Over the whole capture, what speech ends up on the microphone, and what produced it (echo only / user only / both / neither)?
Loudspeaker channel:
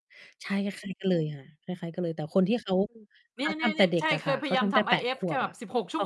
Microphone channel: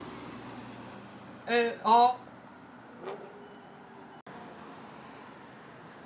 user only